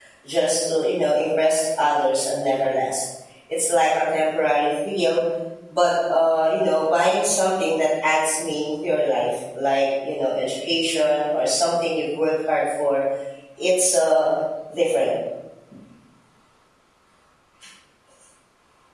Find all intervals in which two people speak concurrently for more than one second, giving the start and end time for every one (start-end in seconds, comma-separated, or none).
none